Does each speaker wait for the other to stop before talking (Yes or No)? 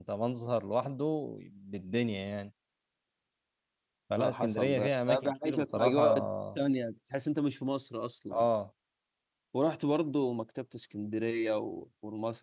No